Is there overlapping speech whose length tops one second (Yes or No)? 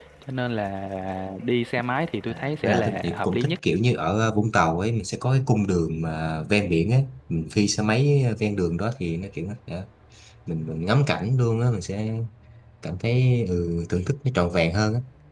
Yes